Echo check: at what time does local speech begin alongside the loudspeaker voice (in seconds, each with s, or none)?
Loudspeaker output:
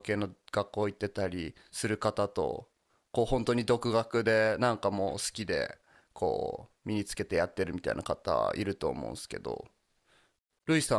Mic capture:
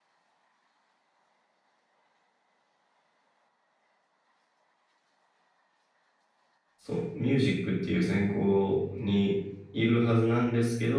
6.8 s